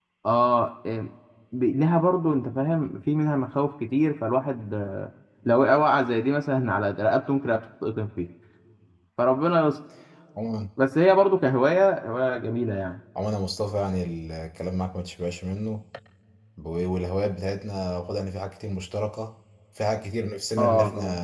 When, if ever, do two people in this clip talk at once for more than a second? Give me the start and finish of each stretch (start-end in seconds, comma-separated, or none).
none